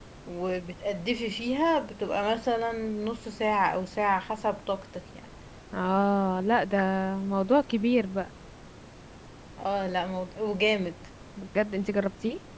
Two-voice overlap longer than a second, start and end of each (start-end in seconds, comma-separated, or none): none